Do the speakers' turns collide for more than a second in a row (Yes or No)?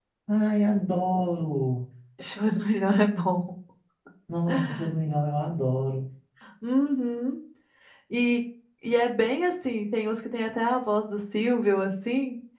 No